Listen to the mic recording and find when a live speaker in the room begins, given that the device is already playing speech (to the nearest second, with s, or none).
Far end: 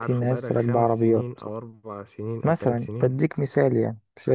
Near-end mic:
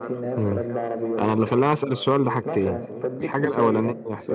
0 s